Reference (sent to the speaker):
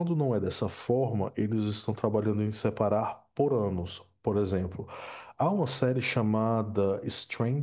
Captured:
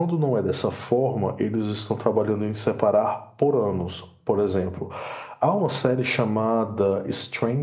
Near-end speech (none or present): none